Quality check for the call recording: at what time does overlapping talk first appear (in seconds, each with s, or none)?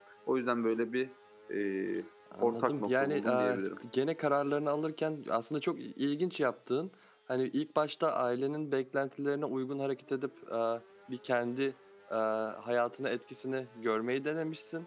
2.3 s